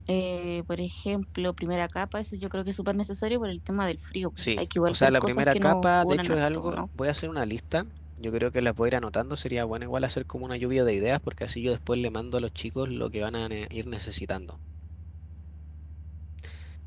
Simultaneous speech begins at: 4.4 s

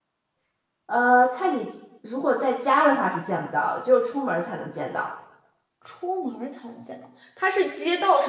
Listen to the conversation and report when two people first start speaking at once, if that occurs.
none

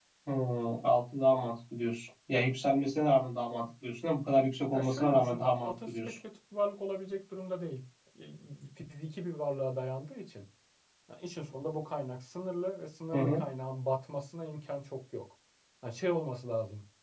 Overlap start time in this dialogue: 4.7 s

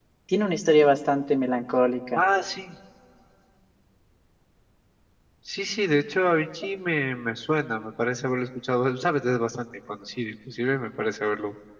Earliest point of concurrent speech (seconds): none

